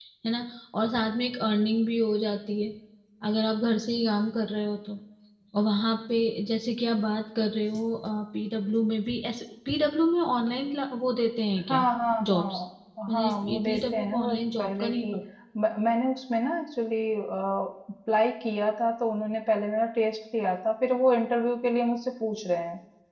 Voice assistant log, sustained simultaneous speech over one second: present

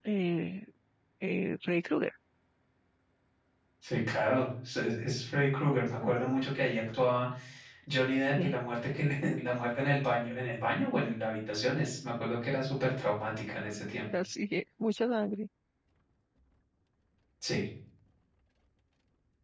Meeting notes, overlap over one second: none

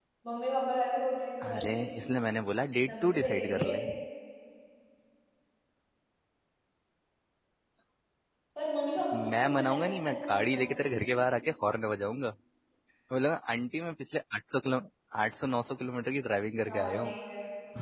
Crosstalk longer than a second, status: present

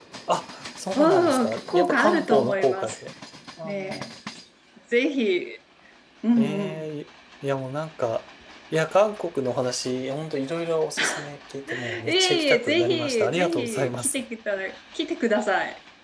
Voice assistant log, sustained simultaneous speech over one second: present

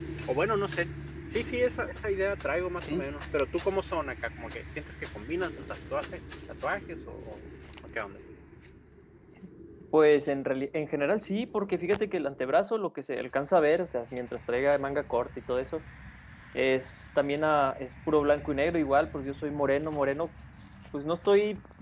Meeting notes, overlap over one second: none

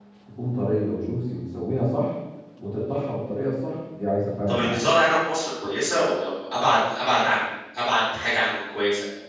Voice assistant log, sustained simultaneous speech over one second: none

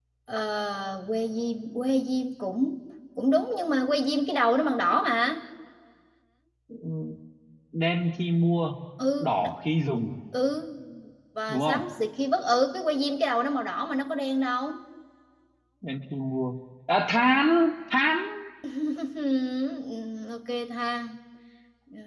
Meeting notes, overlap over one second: none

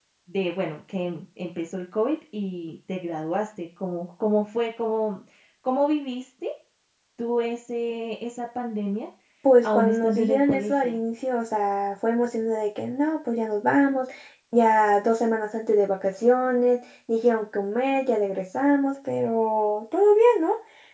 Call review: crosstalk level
present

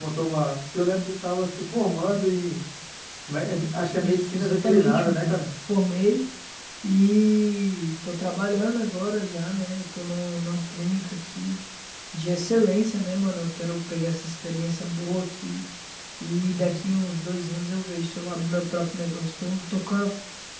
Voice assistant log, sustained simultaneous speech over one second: present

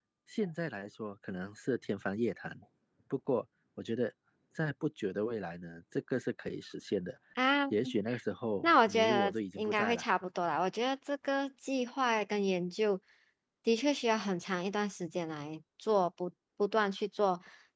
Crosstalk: present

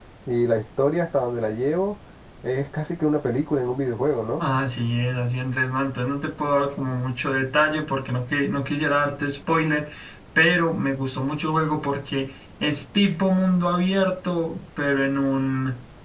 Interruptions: none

